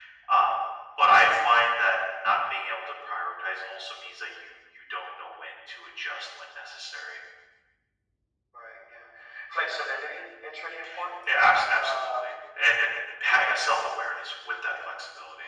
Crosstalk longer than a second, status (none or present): none